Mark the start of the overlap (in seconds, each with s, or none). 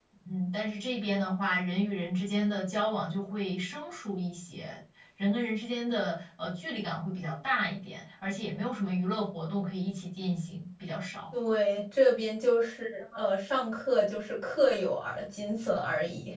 none